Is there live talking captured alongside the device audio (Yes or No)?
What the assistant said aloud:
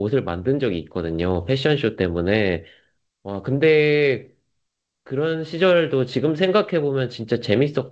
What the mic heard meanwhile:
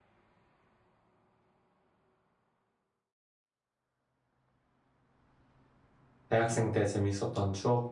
Yes